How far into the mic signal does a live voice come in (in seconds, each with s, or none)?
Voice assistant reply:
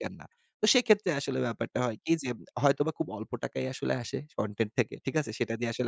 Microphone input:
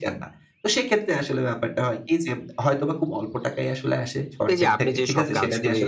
4.4 s